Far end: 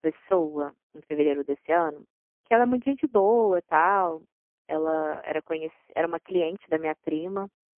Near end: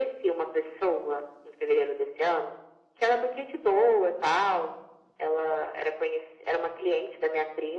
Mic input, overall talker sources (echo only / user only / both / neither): echo only